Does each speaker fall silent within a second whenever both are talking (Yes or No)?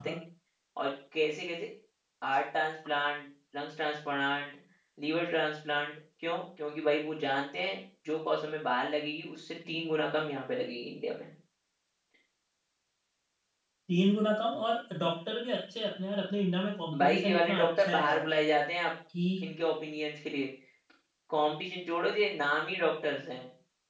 No